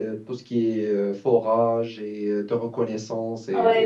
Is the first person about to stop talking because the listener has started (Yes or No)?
Yes